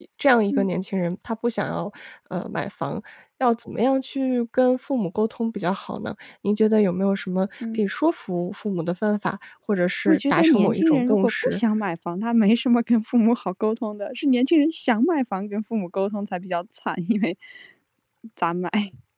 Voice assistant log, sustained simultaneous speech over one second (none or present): present